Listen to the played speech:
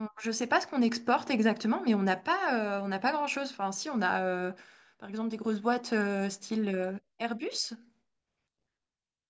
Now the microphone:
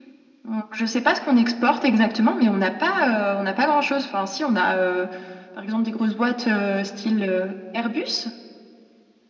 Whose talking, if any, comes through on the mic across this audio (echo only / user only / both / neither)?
echo only